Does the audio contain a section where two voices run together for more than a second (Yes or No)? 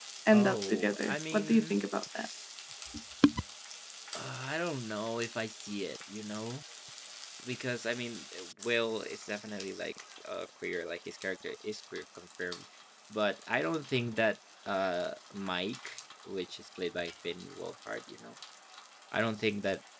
Yes